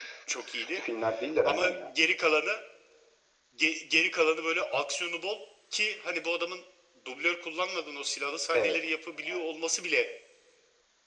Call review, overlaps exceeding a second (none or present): none